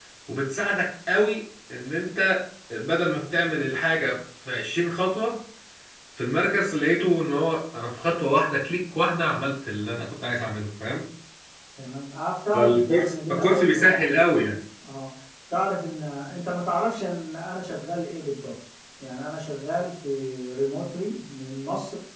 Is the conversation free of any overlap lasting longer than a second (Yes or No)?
No